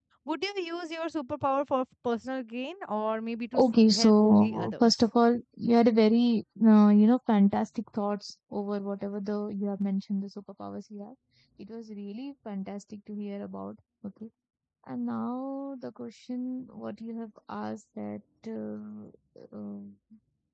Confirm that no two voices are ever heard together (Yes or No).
No